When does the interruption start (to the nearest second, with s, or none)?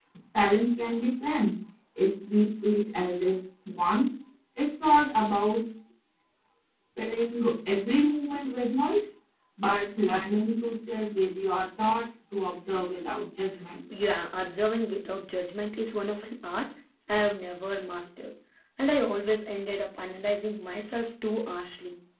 none